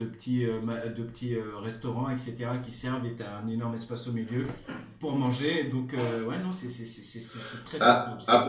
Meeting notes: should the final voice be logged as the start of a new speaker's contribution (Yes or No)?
Yes